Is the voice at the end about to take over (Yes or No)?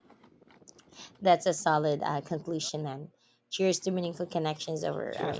Yes